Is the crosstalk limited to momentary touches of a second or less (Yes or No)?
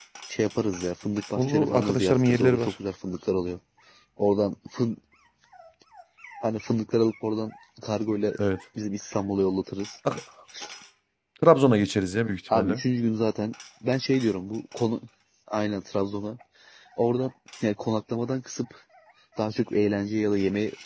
No